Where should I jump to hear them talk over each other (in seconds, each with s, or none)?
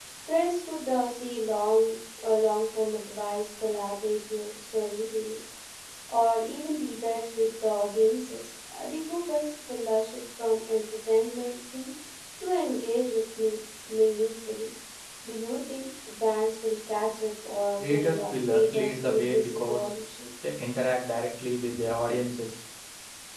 17.8 s